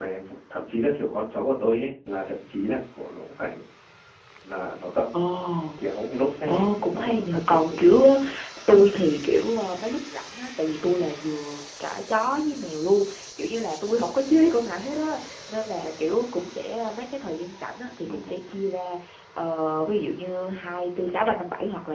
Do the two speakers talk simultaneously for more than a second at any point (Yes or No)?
Yes